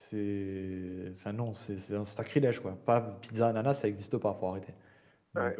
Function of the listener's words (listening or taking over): taking over